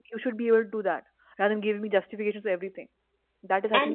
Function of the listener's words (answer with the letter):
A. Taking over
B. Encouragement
A